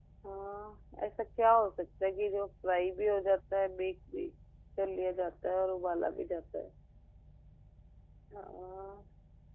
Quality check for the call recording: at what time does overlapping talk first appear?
none

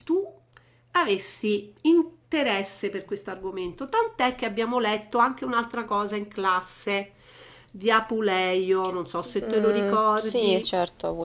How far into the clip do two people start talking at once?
9.4 s

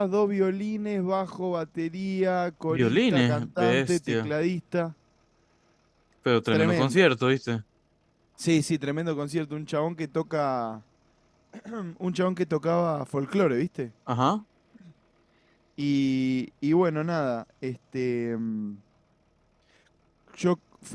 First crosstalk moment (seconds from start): 2.7 s

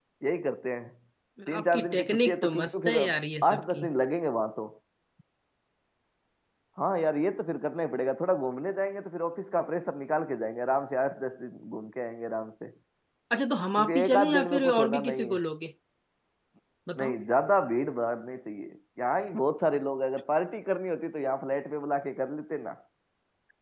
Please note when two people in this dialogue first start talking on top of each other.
1.6 s

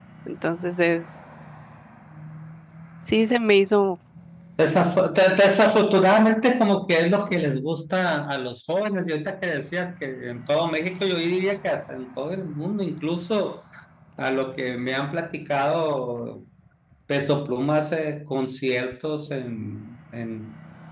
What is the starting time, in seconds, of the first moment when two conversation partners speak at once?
none

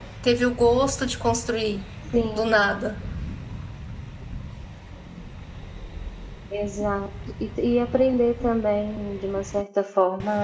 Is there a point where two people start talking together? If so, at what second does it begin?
none

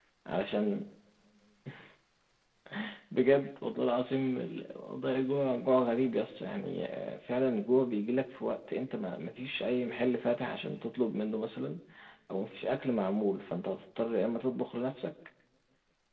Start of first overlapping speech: none

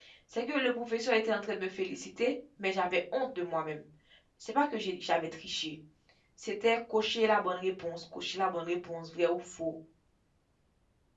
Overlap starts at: none

